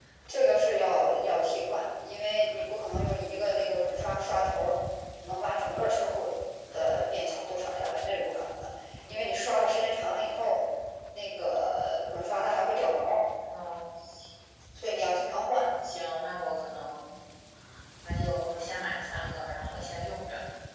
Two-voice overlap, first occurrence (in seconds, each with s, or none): none